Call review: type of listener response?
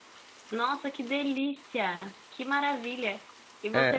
listening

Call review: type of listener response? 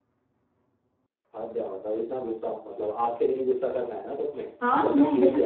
taking over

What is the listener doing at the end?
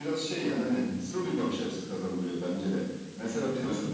listening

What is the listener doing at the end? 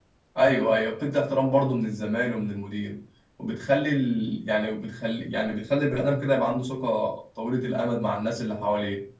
taking over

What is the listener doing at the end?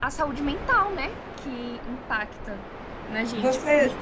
listening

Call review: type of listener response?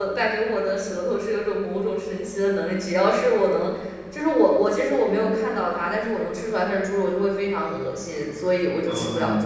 taking over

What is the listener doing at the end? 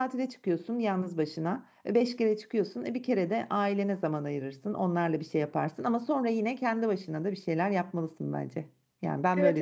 taking over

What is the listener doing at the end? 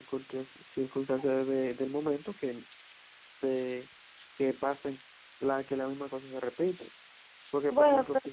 listening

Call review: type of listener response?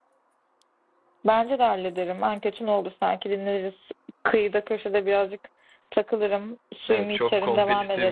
taking over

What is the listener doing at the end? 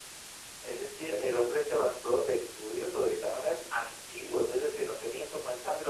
listening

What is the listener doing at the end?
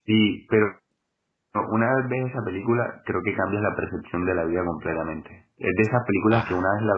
listening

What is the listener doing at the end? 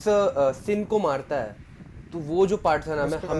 listening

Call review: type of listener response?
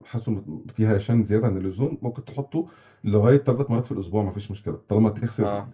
listening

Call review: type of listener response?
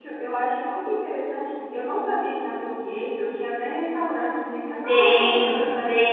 taking over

